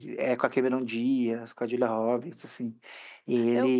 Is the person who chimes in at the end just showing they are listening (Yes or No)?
Yes